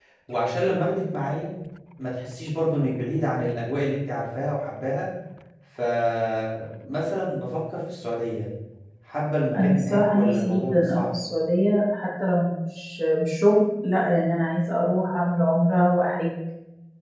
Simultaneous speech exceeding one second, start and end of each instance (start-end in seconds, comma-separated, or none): 9.6-11.0